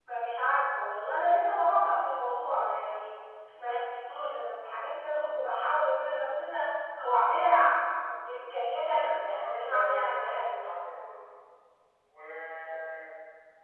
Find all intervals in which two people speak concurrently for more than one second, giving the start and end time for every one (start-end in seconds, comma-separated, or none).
8.9-10.4